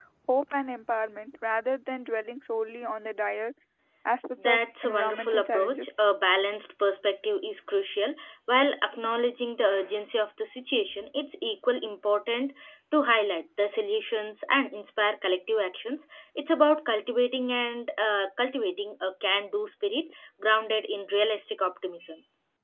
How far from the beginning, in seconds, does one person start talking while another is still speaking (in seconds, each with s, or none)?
4.5 s